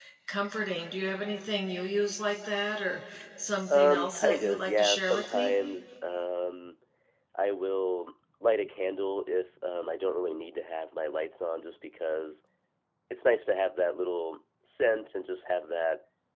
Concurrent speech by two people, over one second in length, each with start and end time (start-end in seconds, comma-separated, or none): 3.7-5.5